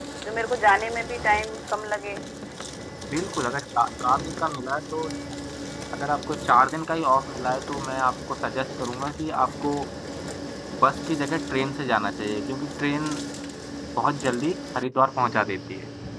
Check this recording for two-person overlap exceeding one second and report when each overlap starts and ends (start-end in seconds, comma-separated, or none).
none